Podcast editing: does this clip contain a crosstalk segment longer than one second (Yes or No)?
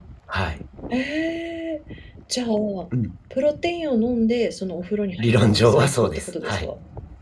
Yes